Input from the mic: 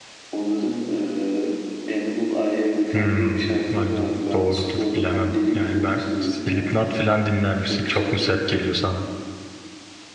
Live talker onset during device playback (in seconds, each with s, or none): 2.9 s